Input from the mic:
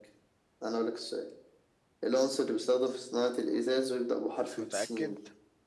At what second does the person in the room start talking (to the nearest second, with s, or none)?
5 s